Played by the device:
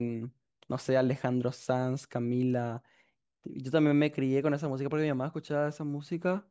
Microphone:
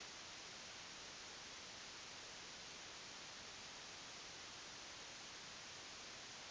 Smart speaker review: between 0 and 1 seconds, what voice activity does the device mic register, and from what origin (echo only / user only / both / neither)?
neither